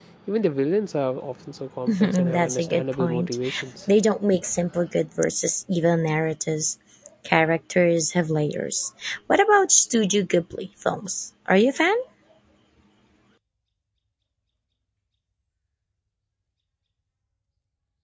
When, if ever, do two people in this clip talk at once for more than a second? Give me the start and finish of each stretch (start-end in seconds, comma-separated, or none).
1.9-3.4